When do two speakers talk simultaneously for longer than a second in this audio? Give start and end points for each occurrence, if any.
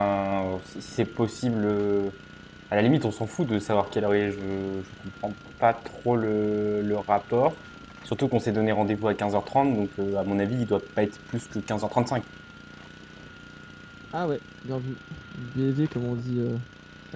none

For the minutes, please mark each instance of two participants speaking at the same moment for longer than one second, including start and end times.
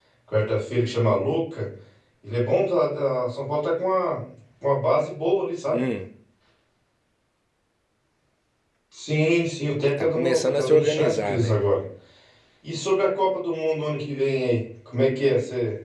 10.0-11.6

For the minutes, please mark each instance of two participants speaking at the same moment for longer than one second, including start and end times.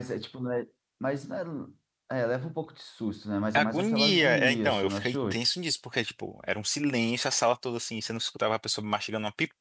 3.5-5.2

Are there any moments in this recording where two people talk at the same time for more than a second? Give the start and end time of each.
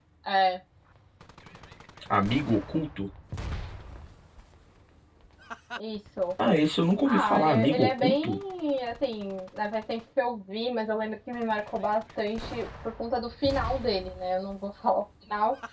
7.0-8.4

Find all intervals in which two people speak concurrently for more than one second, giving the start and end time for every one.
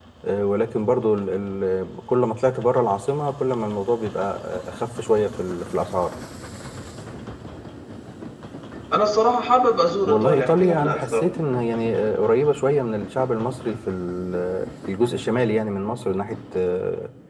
10.0-11.2

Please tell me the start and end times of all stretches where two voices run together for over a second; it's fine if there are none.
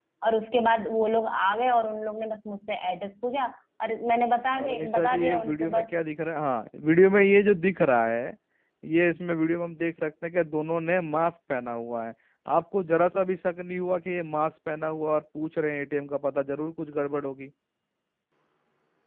4.6-5.8

